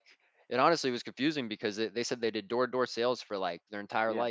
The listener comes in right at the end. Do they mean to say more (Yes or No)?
No